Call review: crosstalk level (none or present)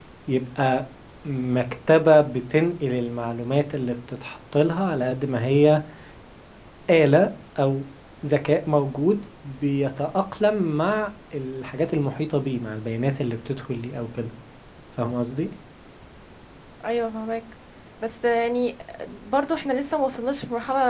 none